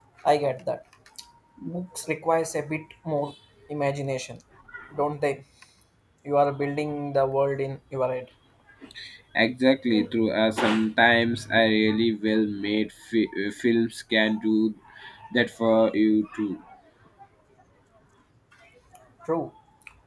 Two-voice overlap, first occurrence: none

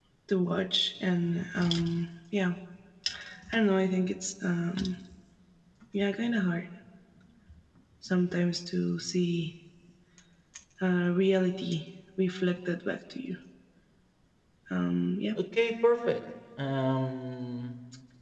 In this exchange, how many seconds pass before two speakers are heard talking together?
none

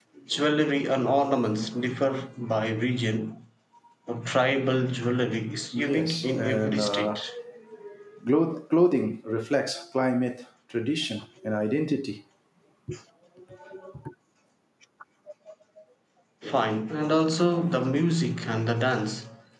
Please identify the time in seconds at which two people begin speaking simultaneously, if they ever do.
6 s

